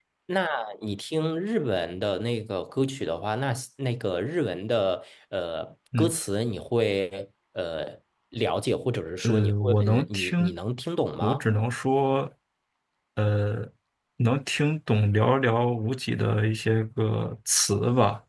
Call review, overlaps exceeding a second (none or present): present